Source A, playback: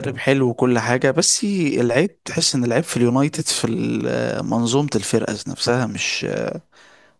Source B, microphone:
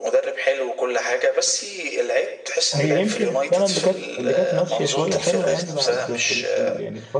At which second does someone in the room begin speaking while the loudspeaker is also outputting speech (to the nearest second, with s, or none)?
3 s